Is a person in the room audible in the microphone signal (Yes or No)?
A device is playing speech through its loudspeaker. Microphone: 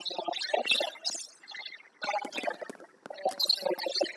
No